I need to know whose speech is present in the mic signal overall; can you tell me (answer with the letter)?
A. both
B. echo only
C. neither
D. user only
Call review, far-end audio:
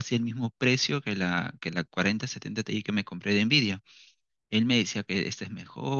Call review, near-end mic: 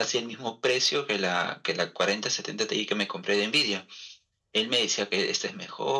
B